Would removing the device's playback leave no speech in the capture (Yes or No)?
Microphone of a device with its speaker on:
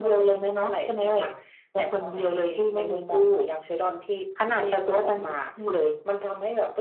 Yes